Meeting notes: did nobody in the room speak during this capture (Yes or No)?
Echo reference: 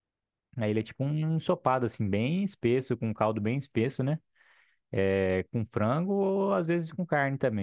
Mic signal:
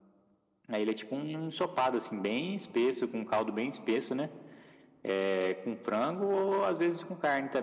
Yes